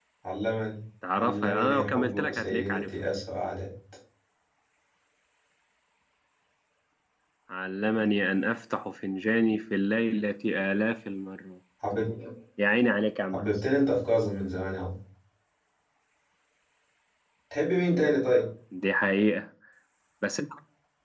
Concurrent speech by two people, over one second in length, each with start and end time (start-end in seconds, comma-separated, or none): 1.2-2.8